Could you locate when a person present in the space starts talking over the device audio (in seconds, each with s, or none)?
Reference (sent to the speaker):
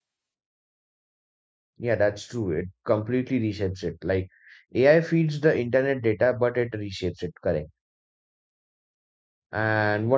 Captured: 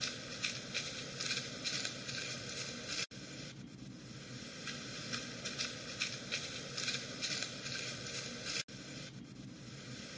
none